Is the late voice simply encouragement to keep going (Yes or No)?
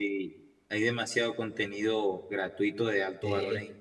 Yes